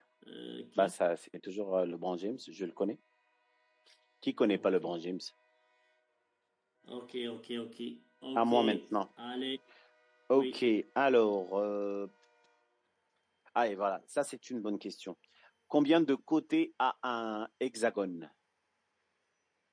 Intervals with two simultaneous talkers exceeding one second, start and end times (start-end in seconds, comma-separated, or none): none